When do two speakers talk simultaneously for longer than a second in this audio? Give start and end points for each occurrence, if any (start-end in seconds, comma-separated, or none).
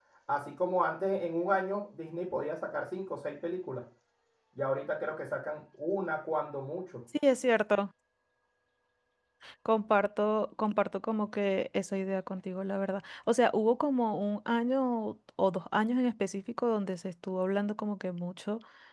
none